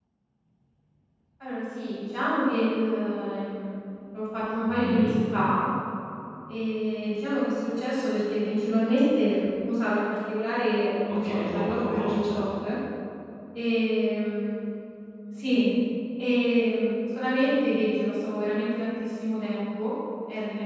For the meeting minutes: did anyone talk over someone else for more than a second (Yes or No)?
Yes